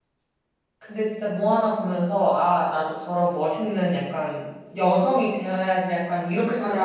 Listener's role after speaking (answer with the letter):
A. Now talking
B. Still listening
A